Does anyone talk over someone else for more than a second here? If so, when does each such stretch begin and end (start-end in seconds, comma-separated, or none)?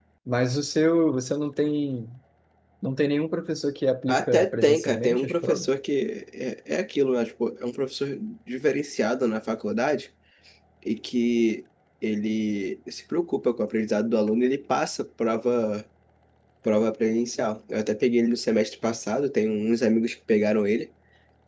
4.1-5.7